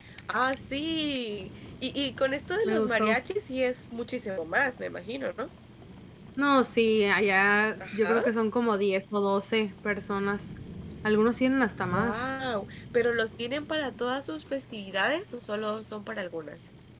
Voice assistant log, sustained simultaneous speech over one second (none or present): none